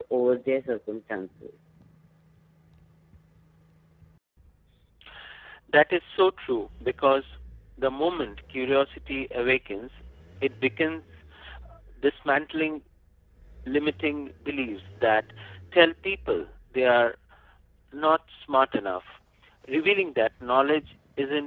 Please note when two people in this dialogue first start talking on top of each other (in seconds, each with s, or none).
none